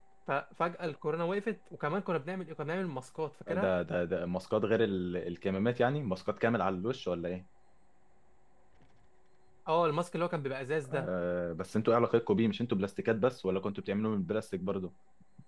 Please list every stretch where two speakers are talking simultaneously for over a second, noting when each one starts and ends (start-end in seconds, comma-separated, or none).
none